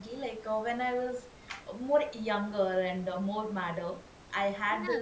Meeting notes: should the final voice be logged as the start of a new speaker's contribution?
No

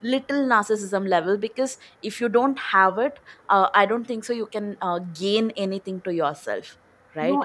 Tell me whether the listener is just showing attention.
No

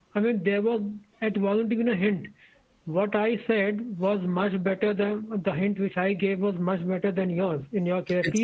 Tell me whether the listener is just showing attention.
Yes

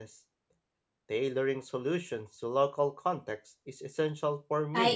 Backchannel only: No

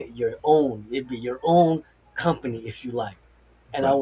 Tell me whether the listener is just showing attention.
Yes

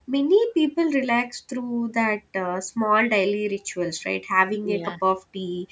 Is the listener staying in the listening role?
Yes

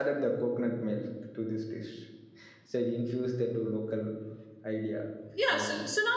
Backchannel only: No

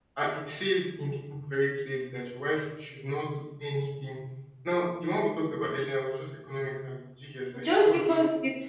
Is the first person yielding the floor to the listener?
Yes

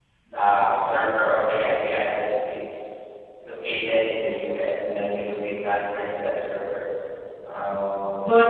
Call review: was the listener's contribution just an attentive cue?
No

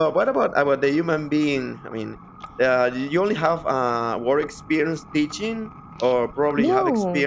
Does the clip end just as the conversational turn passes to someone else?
No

